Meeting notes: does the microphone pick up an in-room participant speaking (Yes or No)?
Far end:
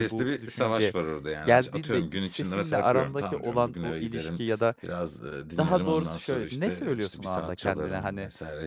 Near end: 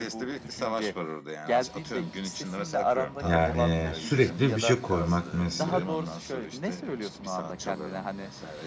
Yes